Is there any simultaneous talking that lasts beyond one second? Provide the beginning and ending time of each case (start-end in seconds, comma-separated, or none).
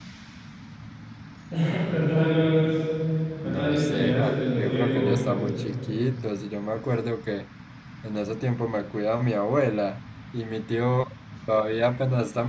3.4-5.4